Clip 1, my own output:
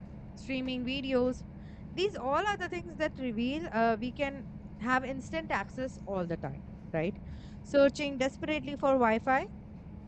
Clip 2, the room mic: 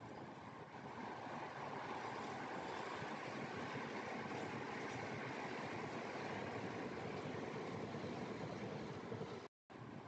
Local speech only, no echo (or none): none